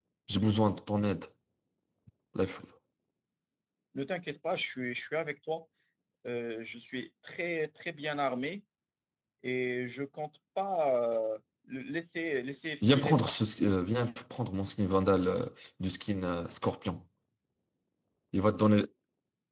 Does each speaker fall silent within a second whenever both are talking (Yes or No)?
Yes